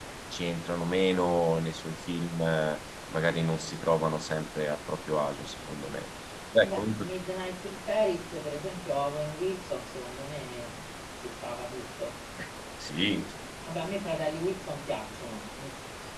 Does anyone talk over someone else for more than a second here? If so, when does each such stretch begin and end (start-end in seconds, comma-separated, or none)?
none